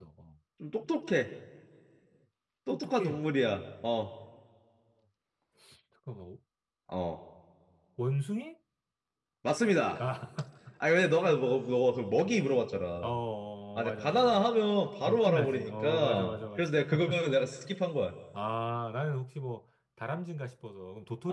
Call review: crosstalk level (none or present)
present